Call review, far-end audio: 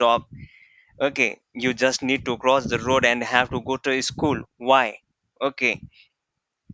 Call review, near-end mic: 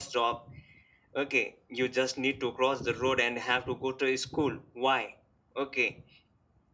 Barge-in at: none

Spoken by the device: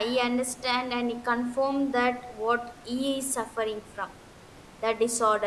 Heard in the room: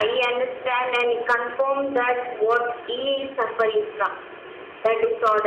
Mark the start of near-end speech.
none

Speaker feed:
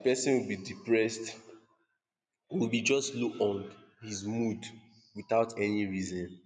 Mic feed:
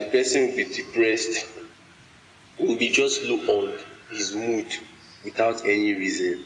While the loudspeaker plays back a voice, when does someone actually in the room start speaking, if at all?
none

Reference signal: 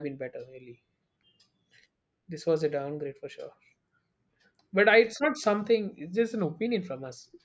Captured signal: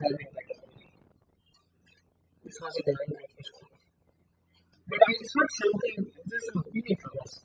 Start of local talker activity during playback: none

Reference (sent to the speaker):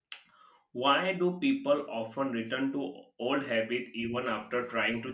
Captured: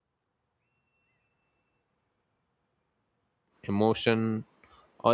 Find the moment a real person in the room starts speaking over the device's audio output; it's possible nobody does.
3.6 s

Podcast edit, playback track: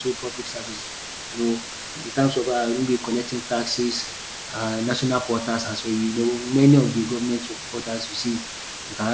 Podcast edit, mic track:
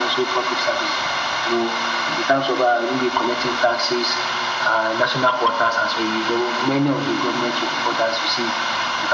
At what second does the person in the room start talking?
none

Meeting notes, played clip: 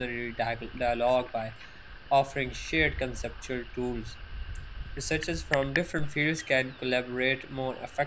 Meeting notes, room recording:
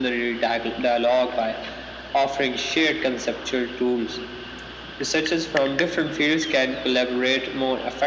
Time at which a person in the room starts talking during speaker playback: none

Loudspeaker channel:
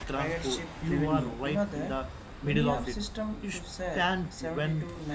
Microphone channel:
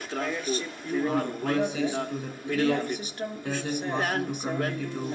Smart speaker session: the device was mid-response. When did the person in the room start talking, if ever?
1.1 s

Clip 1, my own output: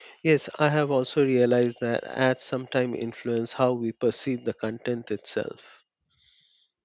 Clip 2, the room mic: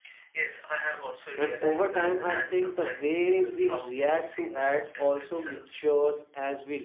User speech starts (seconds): 1.4 s

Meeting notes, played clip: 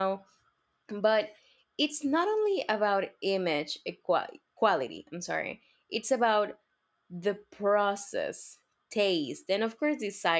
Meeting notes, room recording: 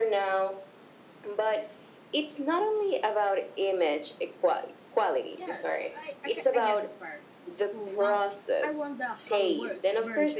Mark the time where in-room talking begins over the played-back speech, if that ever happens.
5.4 s

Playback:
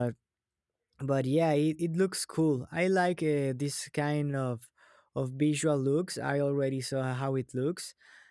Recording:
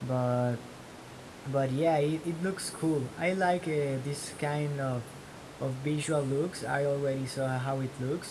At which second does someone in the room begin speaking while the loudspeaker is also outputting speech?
none

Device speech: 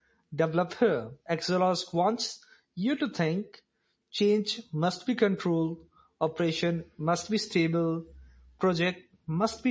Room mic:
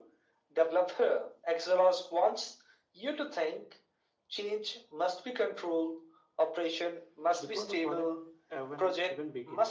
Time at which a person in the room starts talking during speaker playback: 7.4 s

